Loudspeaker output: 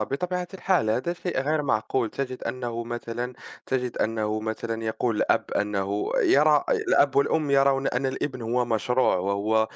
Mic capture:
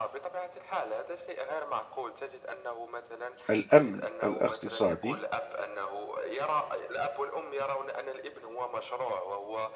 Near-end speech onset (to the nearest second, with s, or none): 3 s